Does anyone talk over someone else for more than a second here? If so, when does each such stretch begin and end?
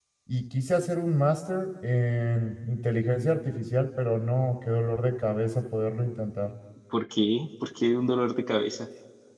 none

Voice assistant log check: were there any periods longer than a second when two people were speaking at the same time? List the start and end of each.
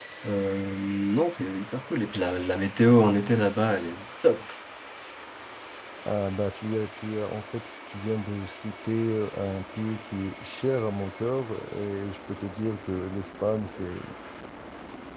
none

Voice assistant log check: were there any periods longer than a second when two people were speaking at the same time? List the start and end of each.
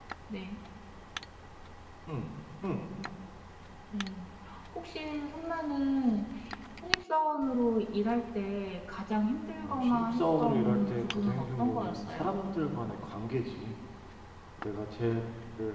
9.6-12.3

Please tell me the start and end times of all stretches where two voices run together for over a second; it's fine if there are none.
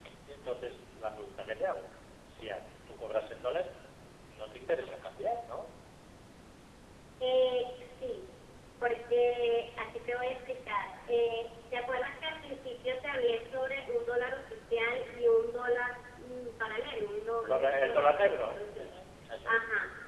17.5-18.9

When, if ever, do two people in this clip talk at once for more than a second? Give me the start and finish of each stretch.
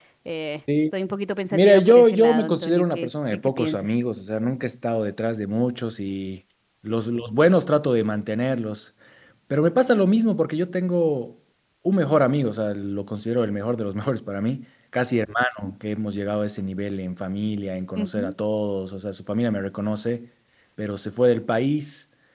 1.5-3.9

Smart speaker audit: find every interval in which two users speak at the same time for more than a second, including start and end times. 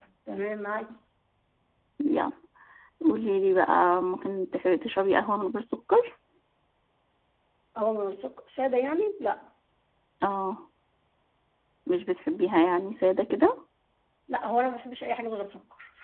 none

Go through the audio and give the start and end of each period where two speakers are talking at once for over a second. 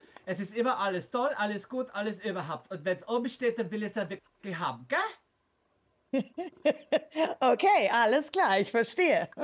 none

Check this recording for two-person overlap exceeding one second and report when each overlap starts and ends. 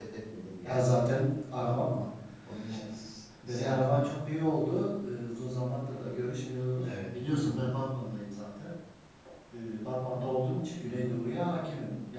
none

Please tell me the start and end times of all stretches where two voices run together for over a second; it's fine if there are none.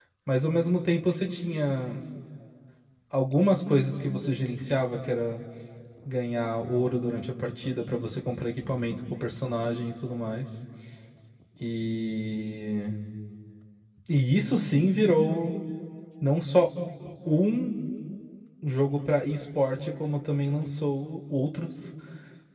none

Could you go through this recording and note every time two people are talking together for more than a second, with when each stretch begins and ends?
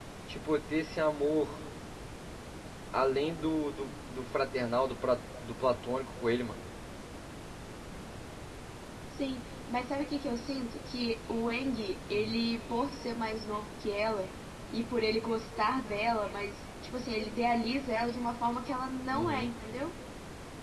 none

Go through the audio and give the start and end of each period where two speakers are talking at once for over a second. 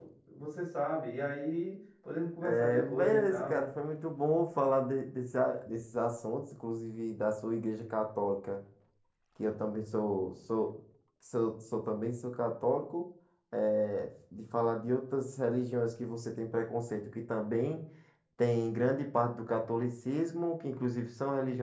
2.4-3.6

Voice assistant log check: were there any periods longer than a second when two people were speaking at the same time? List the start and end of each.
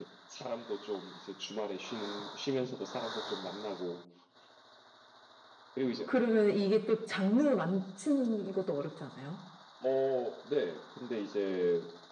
none

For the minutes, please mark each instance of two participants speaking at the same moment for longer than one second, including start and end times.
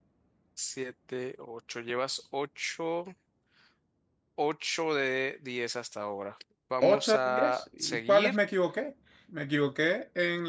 6.8-8.4

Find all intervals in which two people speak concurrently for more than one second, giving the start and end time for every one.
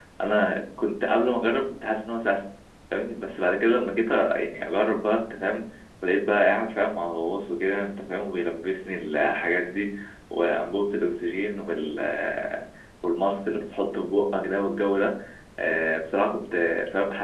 none

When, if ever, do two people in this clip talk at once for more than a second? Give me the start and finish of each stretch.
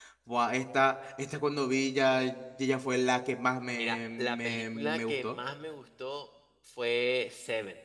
3.7-5.4

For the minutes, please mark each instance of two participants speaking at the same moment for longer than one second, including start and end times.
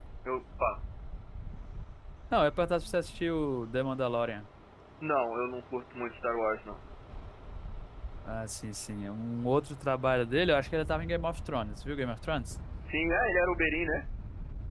none

